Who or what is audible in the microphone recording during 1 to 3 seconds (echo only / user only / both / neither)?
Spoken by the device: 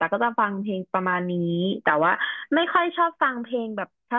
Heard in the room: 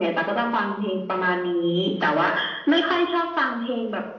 echo only